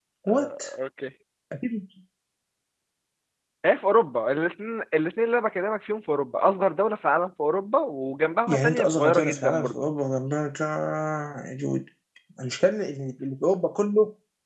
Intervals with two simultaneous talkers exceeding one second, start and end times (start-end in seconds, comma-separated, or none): 8.5-9.7